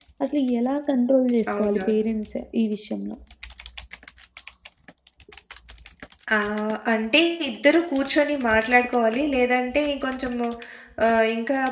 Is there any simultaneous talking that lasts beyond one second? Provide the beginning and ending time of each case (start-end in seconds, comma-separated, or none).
none